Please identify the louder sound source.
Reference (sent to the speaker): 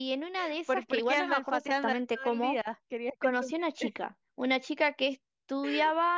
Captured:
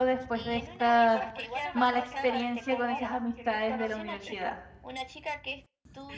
user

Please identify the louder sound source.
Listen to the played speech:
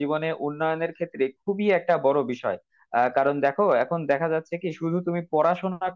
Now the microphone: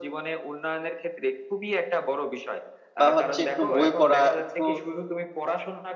user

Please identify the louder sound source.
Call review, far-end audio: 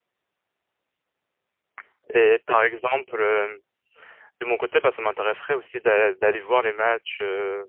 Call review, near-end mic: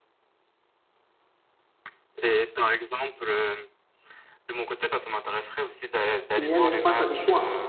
user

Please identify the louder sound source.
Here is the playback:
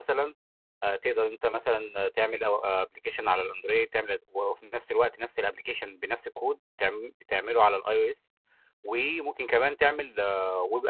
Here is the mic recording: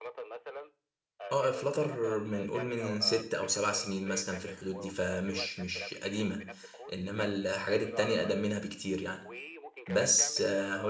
user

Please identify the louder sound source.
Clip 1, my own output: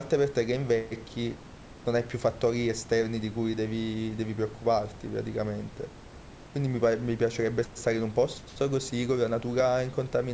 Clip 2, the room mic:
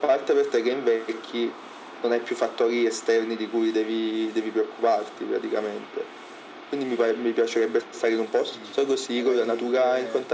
echo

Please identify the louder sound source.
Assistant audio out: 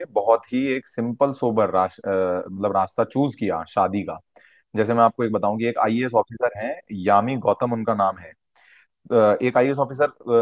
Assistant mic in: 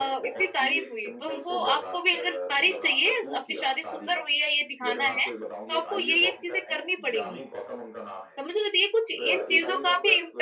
user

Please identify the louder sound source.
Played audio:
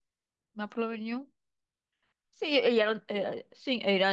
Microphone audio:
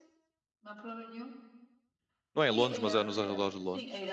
user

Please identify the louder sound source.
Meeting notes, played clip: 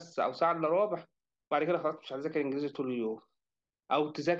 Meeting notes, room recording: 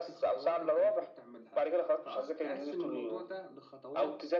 echo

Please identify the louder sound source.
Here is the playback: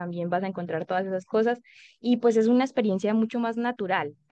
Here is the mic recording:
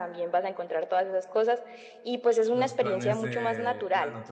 echo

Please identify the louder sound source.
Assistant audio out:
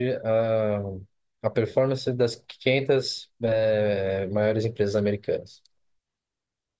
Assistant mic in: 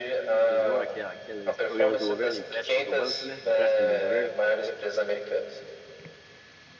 echo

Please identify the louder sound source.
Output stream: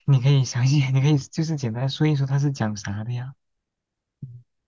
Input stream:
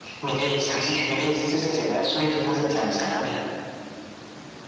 echo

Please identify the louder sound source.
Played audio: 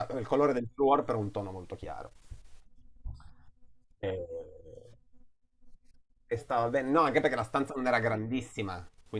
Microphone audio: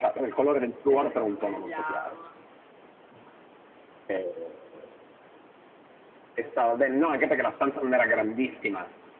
echo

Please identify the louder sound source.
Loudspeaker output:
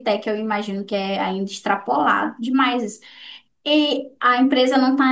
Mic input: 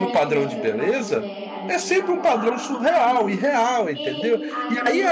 user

